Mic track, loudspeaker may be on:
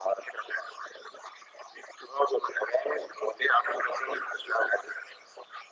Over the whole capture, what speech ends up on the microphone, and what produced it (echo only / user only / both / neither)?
echo only